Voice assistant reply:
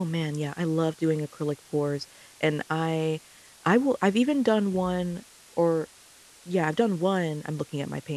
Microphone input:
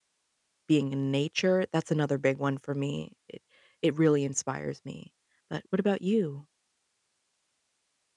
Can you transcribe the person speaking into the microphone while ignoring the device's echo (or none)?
being in nature, that's another big one for me. It it really inspires me, but what about you?